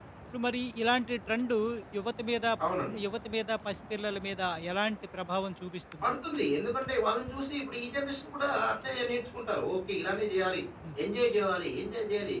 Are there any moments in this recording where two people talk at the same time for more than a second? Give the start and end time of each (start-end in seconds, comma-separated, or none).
none